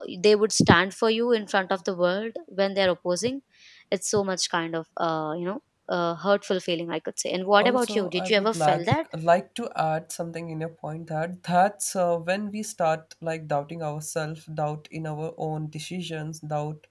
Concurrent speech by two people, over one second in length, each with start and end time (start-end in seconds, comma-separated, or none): 7.6-8.8